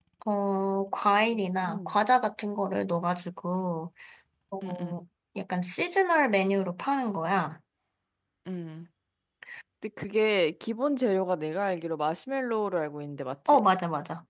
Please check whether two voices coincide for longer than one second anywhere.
No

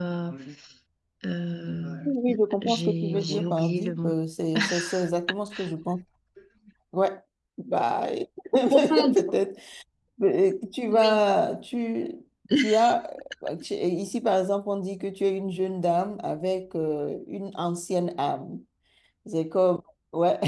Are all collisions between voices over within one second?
No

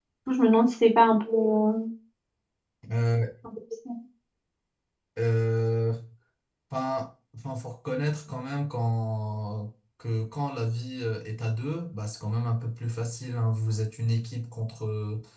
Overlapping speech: No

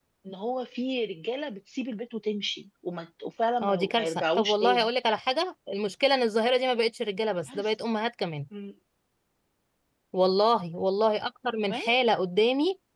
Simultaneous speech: Yes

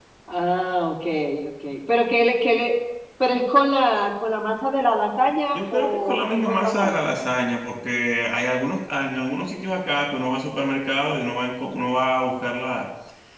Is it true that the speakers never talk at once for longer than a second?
No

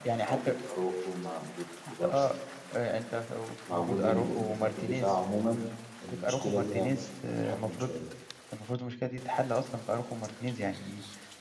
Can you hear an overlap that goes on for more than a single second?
Yes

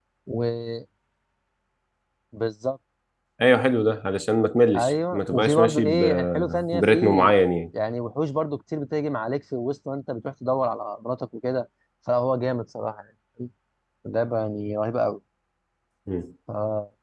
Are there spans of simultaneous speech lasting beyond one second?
Yes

